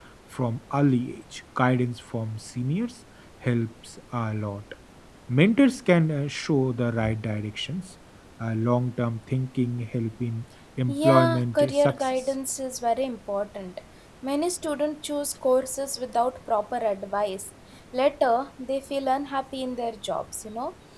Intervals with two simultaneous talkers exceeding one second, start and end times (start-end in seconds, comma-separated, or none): 10.9-12.1